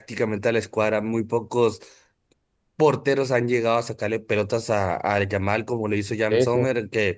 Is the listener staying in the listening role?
Yes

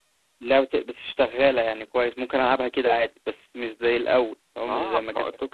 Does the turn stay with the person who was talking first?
No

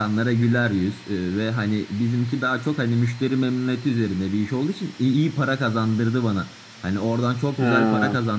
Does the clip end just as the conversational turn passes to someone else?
No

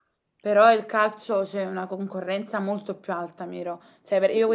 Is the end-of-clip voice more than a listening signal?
No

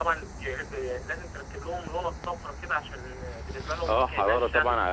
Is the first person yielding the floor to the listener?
Yes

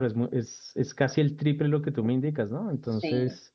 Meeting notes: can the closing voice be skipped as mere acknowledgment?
No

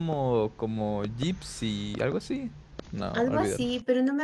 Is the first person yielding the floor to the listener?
Yes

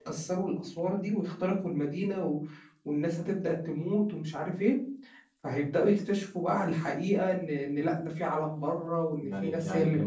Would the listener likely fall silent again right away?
No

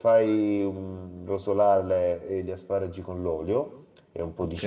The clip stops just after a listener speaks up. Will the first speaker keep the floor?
Yes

